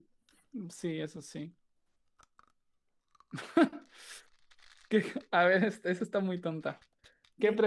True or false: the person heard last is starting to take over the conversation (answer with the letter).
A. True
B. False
B